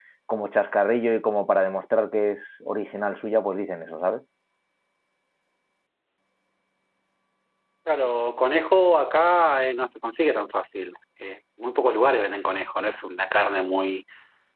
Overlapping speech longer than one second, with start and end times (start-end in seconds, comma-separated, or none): none